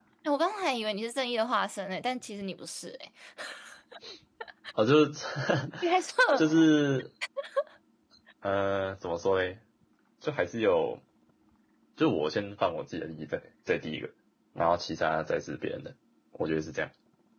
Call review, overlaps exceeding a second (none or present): none